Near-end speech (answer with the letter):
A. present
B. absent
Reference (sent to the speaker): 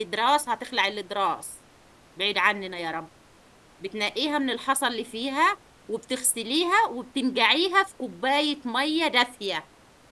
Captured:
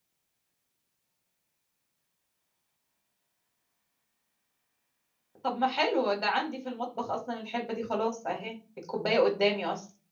A